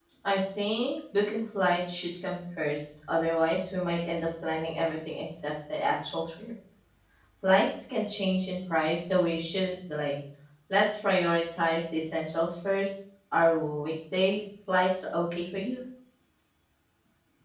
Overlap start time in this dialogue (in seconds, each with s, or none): none